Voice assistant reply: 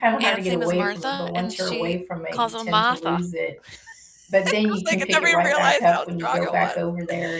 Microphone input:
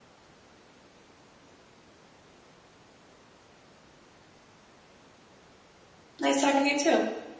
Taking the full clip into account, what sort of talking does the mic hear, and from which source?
user only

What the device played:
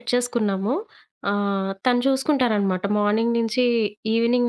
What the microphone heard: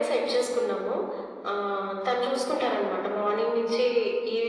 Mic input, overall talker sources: echo only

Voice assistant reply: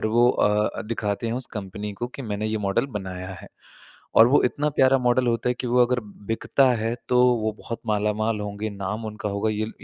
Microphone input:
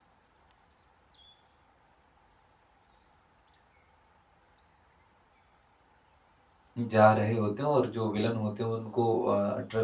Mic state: user only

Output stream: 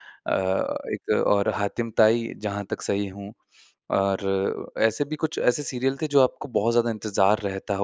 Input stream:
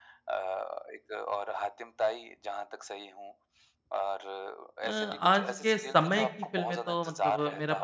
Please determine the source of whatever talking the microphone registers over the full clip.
both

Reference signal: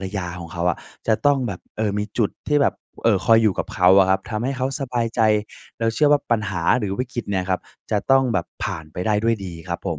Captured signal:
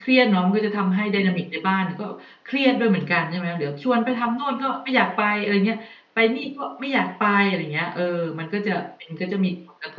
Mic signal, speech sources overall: user only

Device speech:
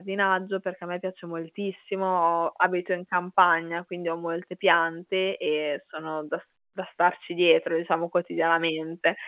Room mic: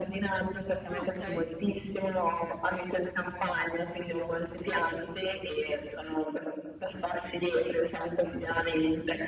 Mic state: both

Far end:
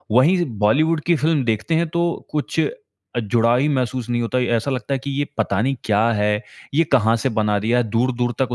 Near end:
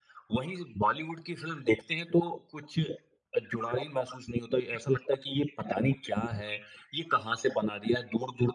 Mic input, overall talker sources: echo only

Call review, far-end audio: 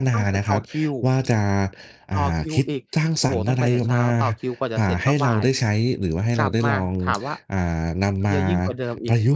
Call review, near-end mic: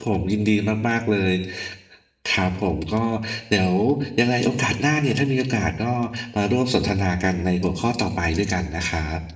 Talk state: user only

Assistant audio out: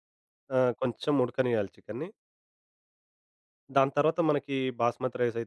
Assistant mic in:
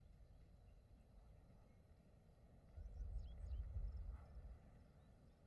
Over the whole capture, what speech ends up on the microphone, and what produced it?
neither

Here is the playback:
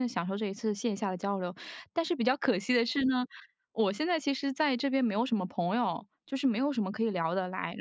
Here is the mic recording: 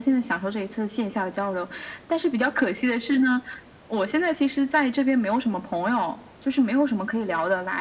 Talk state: echo only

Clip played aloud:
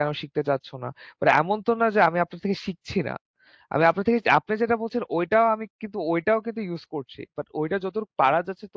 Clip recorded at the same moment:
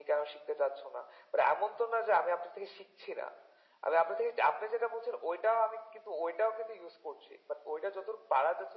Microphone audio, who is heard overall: echo only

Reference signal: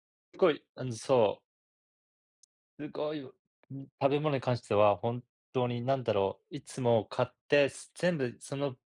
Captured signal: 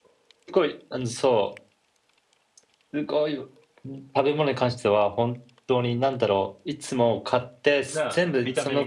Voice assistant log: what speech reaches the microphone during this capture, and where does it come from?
both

